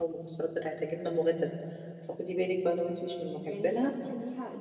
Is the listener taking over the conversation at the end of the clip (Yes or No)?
Yes